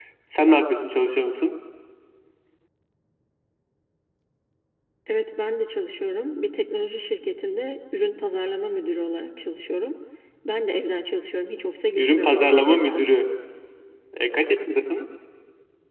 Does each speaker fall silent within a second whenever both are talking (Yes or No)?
No